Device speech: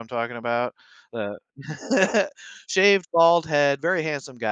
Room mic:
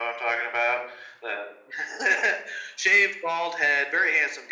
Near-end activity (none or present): none